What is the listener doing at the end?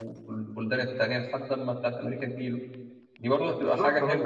taking over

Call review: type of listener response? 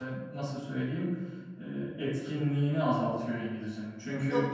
listening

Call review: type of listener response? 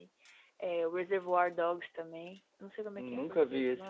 taking over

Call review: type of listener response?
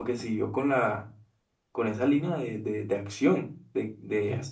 listening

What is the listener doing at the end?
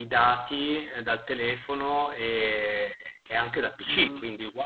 taking over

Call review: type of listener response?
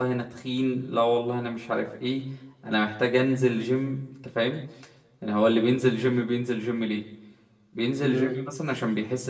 listening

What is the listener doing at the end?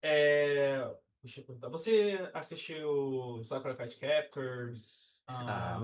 taking over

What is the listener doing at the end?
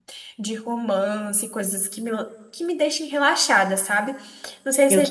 listening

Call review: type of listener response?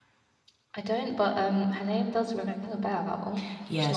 taking over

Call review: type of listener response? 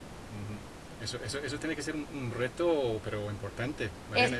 taking over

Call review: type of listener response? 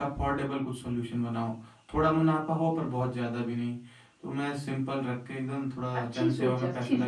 taking over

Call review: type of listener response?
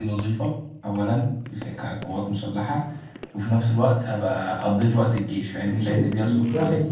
taking over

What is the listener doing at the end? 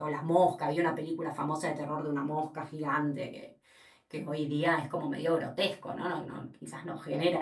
taking over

